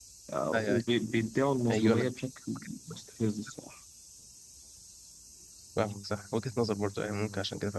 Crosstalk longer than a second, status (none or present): none